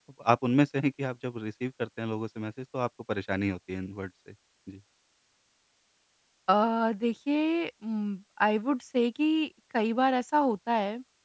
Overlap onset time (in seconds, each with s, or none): none